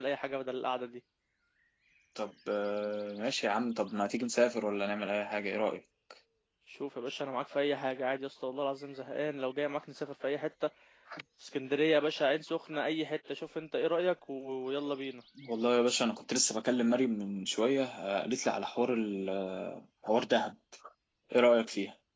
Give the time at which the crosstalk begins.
none

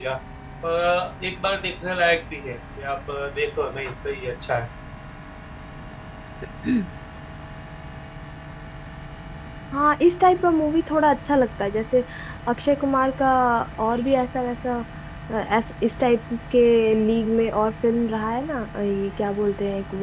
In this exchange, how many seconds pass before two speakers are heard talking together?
none

